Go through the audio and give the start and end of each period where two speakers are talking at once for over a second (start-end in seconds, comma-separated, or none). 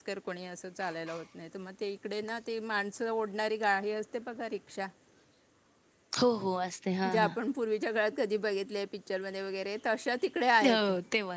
none